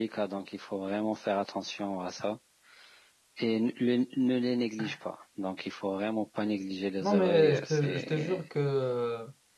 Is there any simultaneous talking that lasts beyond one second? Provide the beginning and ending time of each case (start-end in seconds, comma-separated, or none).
7.0-8.4